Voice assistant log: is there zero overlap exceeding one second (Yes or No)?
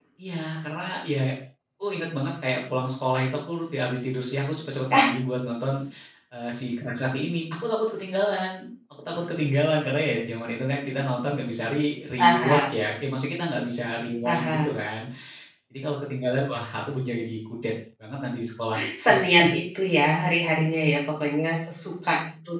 Yes